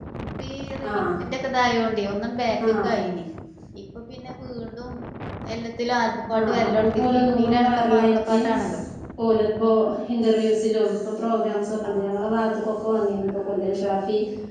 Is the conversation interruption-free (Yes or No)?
No